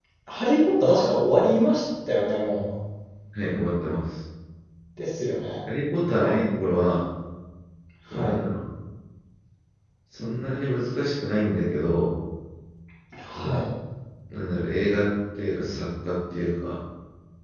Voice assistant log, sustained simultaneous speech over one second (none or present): none